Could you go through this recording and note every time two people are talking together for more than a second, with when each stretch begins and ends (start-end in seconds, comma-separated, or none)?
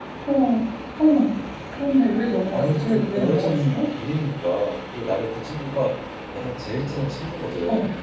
2.5-3.8